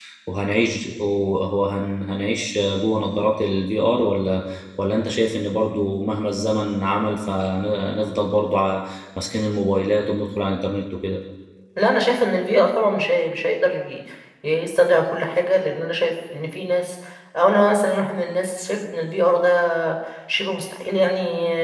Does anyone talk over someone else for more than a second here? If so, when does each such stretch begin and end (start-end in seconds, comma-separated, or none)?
none